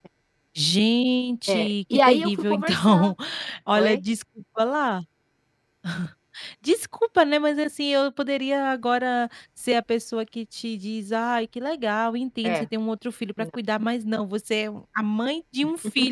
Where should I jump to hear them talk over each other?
1.5 s

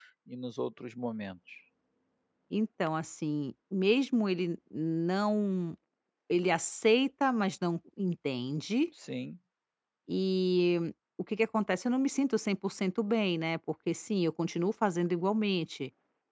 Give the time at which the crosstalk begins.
none

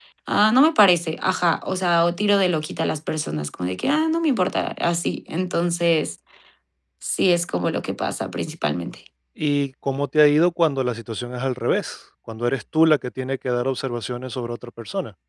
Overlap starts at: none

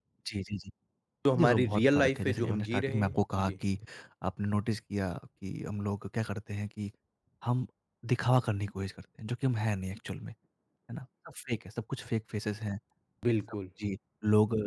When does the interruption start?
1.4 s

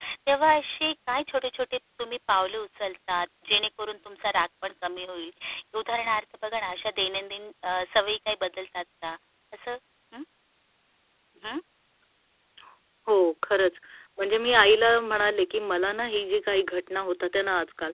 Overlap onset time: none

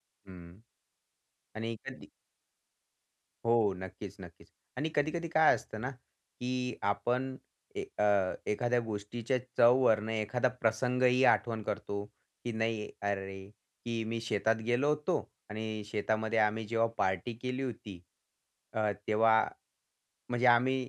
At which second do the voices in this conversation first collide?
none

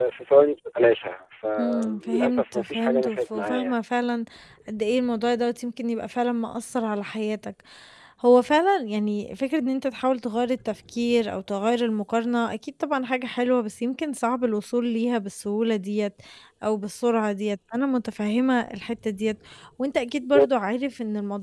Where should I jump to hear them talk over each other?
1.6 s

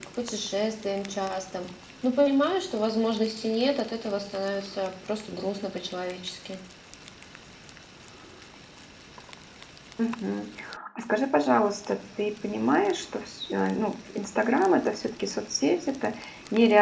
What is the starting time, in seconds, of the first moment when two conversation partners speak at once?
none

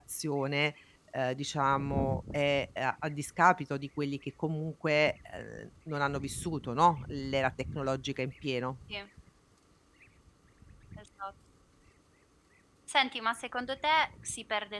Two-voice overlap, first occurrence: none

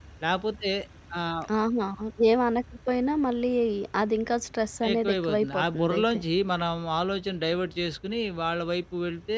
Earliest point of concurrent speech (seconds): 4.9 s

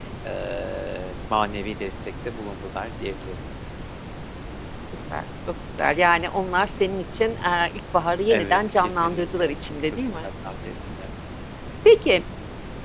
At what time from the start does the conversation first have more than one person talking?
8.3 s

